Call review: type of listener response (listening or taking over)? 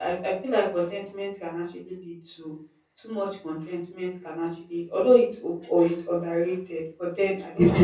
taking over